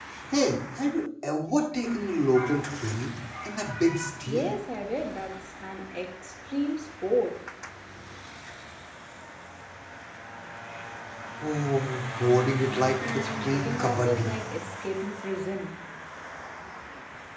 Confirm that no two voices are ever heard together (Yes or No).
No